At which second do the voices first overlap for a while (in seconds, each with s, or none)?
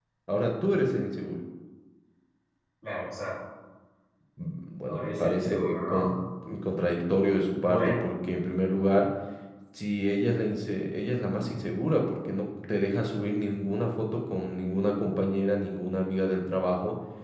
4.9 s